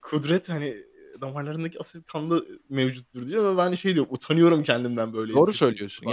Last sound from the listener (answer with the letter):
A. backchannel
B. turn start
B